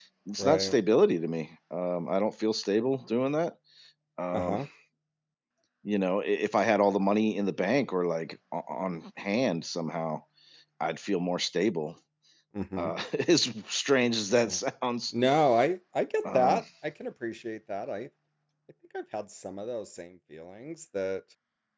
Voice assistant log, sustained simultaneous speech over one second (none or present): none